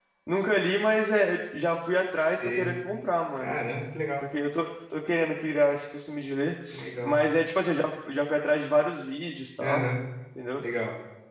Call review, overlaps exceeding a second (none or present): none